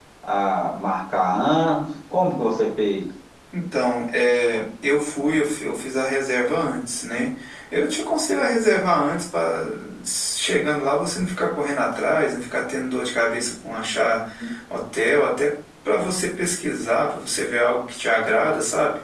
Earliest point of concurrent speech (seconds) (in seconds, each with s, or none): none